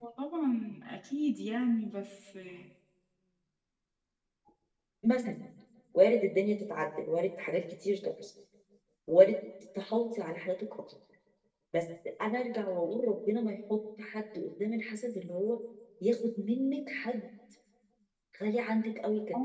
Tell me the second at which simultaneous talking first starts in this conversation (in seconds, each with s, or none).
none